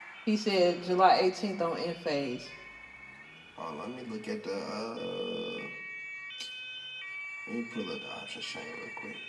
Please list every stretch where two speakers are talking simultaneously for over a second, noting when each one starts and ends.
none

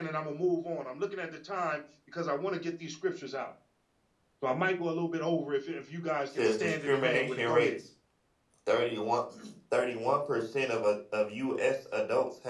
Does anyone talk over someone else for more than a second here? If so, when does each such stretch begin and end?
6.4-7.7

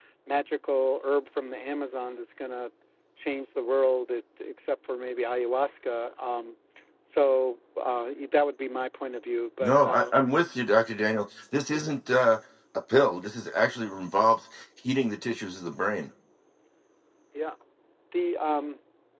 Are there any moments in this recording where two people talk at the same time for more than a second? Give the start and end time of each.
none

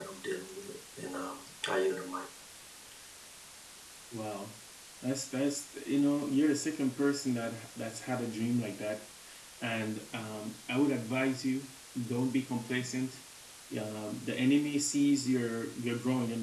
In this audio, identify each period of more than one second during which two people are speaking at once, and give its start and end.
none

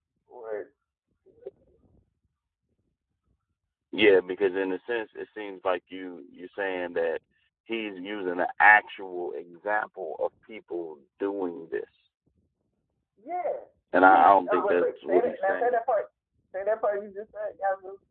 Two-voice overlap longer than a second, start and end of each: 13.9-15.7

